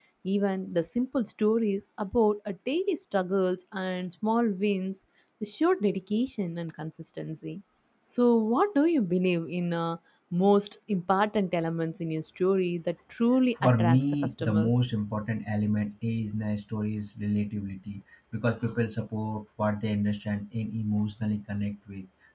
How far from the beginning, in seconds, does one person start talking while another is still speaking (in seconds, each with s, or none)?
13.6 s